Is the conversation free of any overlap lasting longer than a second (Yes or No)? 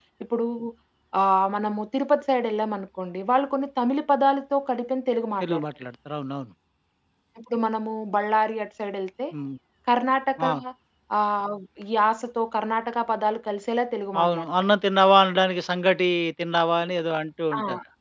Yes